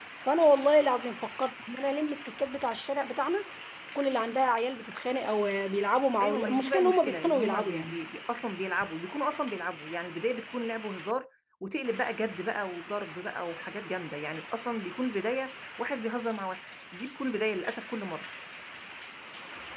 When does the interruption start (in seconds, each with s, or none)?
6.2 s